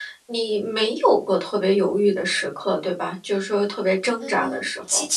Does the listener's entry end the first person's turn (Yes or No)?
Yes